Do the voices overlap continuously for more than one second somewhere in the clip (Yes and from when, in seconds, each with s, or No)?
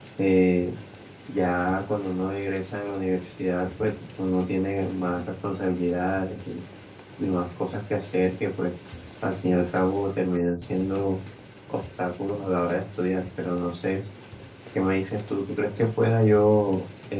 No